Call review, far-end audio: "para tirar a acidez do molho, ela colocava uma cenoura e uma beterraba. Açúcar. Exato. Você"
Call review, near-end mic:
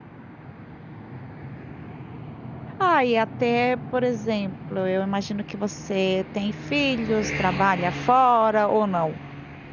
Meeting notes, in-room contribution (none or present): present